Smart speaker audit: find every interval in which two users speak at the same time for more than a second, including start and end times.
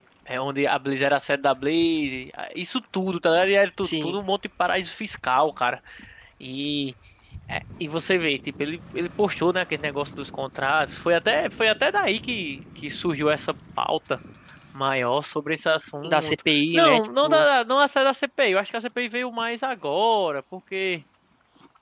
16.1-17.4

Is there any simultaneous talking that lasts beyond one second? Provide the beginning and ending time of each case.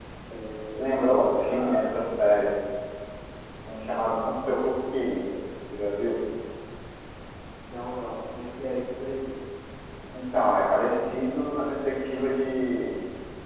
0.7-1.9

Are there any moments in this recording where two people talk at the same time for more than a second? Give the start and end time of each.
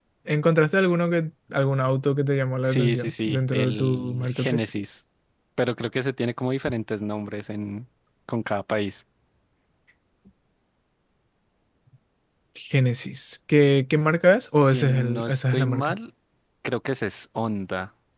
2.6-4.6, 14.6-15.9

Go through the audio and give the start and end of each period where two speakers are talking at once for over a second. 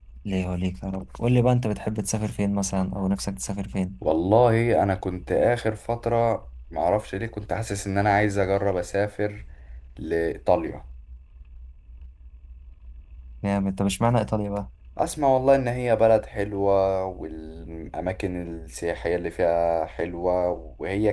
none

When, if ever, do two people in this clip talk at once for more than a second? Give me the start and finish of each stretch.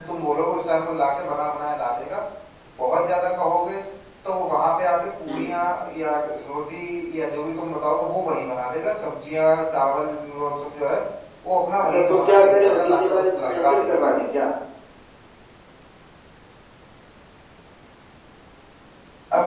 11.8-14.3

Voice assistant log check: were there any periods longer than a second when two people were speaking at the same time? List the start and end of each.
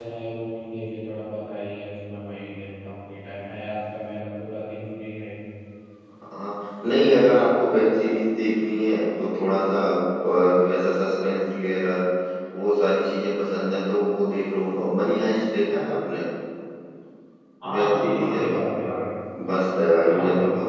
17.7-18.9

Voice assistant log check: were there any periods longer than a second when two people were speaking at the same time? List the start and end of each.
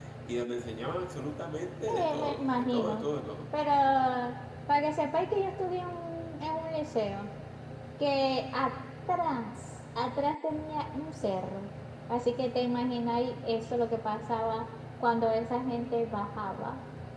1.9-3.1

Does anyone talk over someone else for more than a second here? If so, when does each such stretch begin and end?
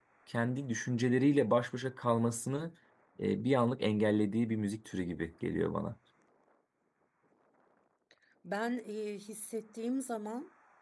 none

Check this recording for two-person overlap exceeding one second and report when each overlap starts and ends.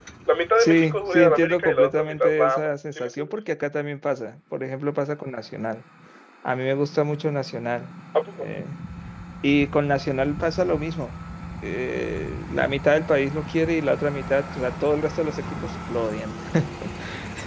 0.6-3.3

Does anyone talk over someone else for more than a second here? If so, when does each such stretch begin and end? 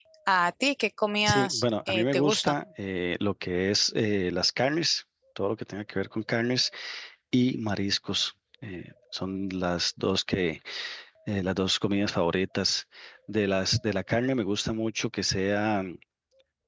1.2-2.5

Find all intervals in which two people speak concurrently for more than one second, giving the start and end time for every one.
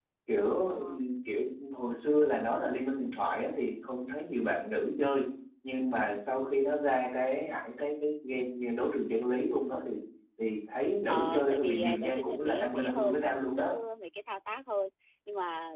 11.1-13.6

